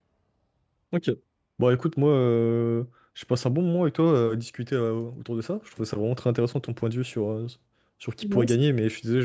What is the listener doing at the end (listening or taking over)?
listening